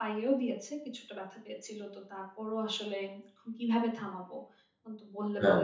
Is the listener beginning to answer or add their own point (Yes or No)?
No